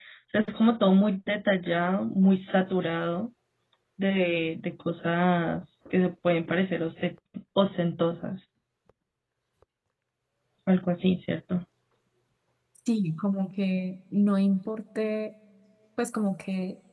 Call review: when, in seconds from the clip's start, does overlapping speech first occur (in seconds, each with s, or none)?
none